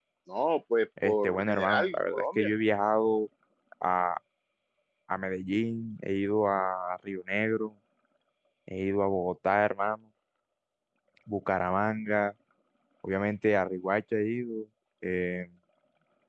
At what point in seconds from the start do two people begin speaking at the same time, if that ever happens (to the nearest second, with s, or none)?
1 s